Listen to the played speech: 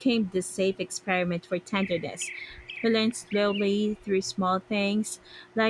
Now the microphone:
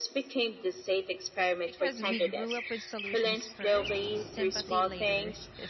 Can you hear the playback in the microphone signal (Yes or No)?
Yes